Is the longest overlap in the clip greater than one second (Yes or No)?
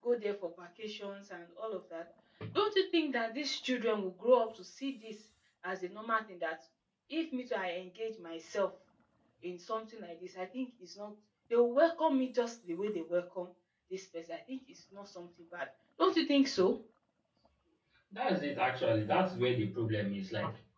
No